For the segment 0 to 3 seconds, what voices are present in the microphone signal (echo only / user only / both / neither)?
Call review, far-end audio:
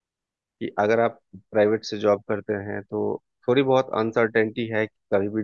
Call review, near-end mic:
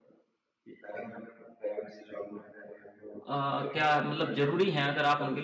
echo only